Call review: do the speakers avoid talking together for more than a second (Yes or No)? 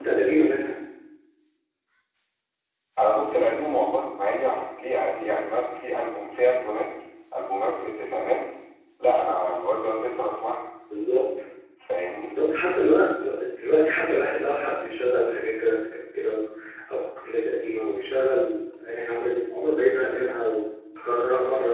Yes